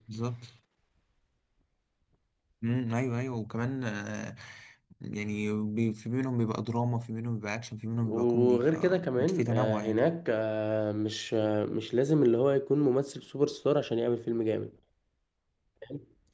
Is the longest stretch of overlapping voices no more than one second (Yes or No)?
No